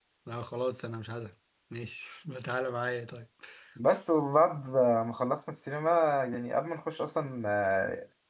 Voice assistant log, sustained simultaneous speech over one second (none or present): none